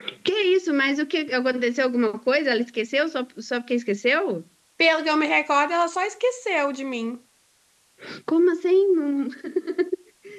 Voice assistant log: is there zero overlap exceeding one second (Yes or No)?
Yes